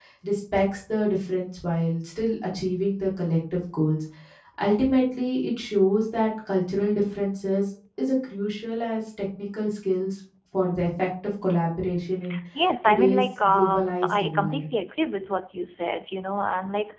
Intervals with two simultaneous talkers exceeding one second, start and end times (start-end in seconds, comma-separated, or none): 12.8-14.6